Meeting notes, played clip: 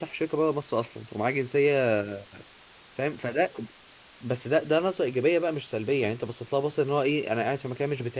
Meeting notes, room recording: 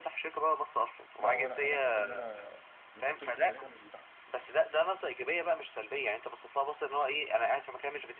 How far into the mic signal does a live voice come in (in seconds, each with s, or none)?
1.2 s